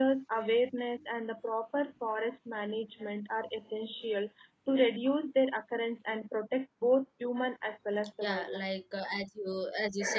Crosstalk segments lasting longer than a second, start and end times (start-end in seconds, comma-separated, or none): none